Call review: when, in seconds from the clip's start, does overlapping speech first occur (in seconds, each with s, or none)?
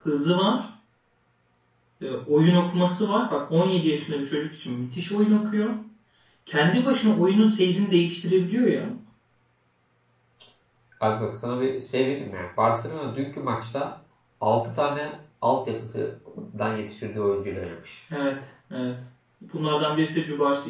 none